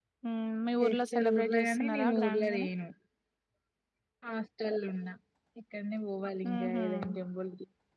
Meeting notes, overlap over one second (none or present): present